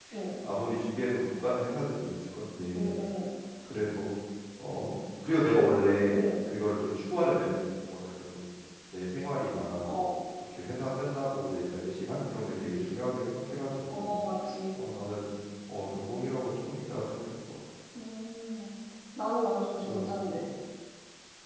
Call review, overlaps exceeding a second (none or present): none